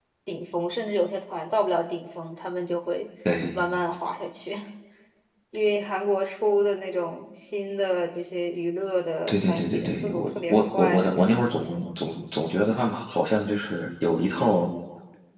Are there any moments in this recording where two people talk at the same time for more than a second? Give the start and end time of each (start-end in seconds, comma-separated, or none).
9.3-11.1